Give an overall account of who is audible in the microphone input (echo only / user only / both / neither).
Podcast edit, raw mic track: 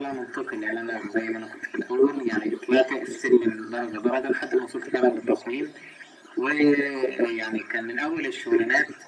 echo only